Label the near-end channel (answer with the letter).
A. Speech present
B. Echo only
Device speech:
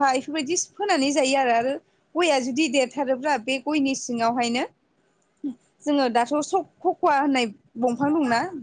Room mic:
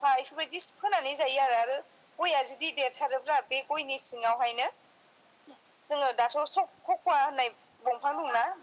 B